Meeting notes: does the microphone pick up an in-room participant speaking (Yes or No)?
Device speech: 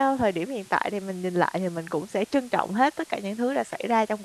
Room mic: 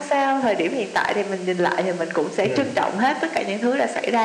Yes